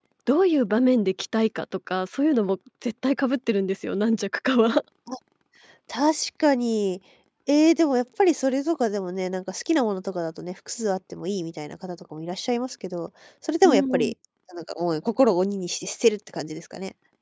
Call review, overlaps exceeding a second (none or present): none